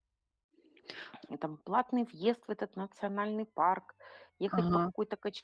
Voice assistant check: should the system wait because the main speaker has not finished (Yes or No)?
Yes